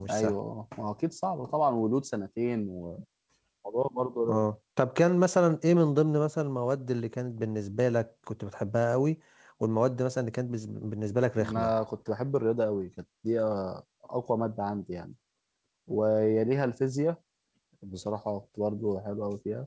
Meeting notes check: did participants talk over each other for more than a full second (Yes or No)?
No